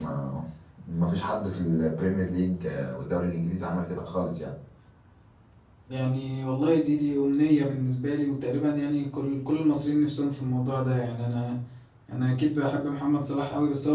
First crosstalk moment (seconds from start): none

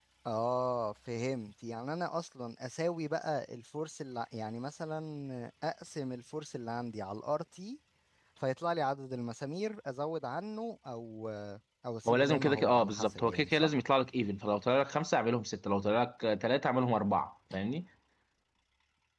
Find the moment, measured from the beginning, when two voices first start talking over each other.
12 s

